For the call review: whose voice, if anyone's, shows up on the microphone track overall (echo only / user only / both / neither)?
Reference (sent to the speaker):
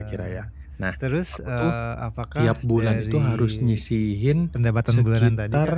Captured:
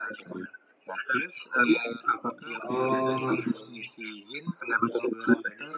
both